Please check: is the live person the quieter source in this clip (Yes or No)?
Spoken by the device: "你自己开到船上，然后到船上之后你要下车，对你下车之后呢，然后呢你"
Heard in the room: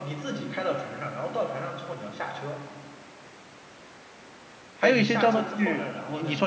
No